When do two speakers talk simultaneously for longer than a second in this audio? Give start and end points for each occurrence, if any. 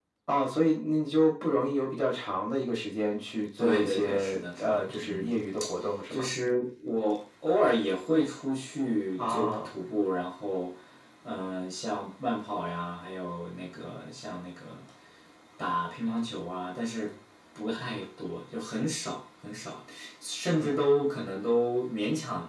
3.6-5.3

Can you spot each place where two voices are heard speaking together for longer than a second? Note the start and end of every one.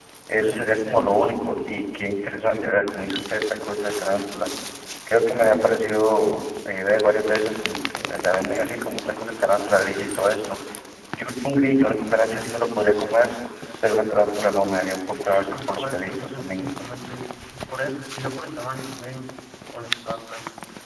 15.2-16.7

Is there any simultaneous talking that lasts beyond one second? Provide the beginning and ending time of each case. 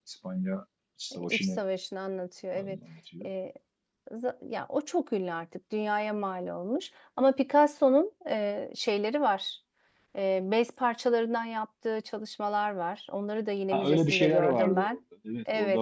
13.7-15.0

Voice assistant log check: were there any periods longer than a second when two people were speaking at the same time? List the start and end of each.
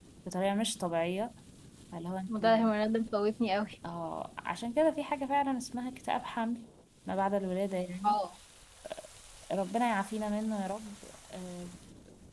none

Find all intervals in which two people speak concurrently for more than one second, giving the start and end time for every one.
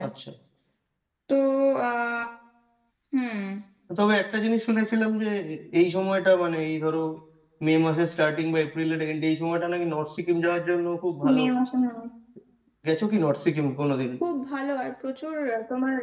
none

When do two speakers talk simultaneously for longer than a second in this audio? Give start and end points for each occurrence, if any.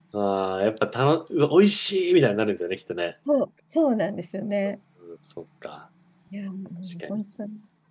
none

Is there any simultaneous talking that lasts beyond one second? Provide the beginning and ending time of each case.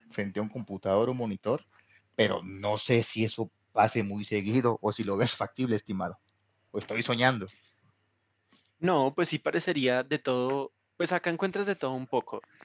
none

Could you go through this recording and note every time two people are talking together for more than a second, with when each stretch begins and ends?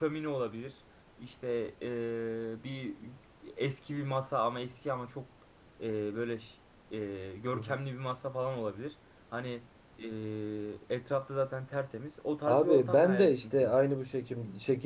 12.5-13.8

